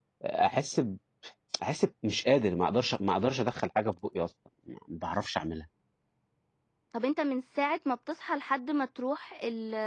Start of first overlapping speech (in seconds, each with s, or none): none